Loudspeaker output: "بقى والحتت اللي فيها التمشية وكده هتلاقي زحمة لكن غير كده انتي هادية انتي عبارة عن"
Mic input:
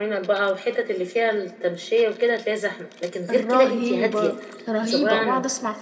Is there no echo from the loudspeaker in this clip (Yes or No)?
No